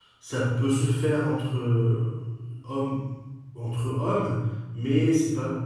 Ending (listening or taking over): listening